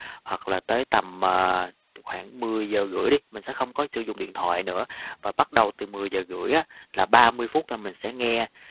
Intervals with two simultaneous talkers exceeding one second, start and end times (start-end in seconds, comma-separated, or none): none